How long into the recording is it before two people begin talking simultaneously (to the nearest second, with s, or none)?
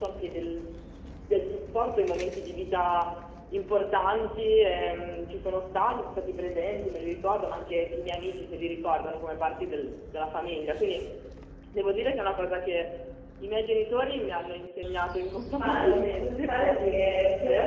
15 s